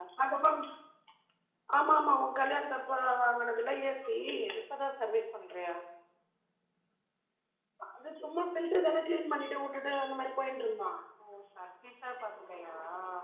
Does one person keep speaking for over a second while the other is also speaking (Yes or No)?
No